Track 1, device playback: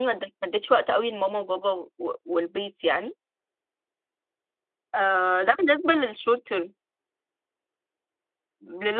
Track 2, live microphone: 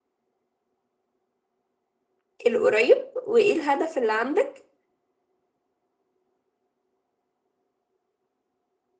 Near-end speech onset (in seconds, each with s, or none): 2.5 s